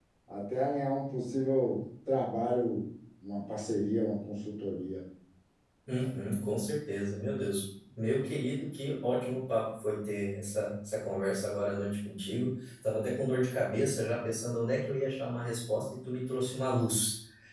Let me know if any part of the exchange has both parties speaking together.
No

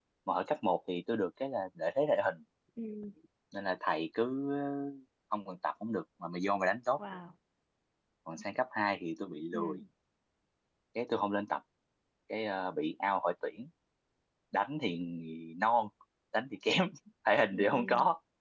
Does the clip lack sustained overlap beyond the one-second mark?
Yes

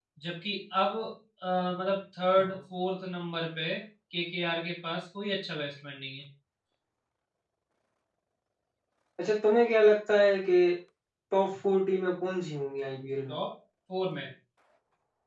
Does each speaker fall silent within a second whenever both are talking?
Yes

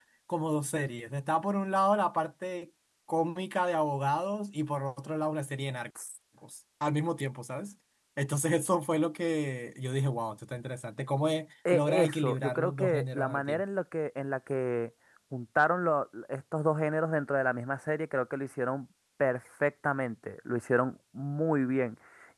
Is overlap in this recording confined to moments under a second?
No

